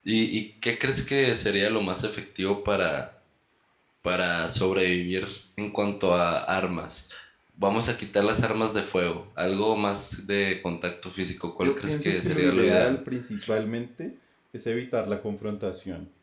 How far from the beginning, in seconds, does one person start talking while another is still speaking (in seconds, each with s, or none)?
11.6 s